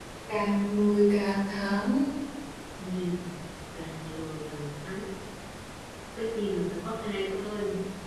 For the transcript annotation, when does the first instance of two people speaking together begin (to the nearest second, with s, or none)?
none